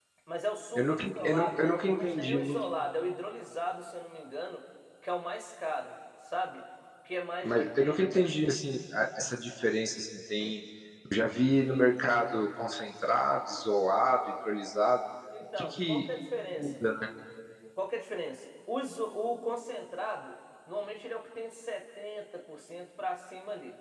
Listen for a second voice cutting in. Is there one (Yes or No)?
Yes